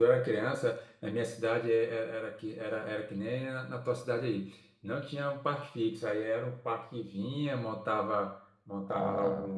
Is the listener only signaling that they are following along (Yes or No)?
Yes